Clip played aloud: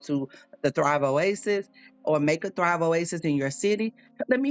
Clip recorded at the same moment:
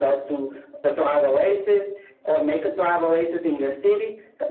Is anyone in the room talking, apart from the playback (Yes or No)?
No